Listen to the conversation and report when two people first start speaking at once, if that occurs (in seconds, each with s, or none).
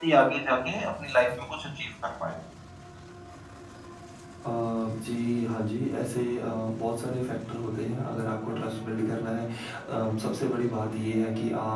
none